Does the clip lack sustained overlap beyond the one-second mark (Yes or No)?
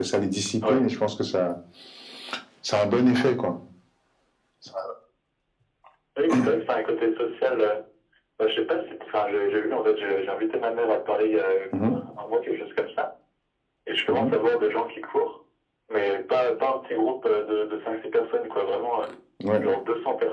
Yes